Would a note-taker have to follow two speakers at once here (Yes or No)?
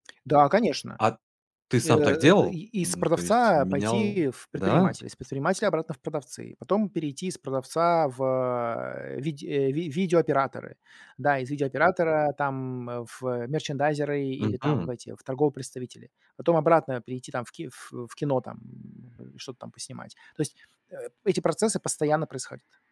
Yes